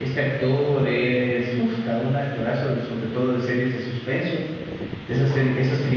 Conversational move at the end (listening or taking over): listening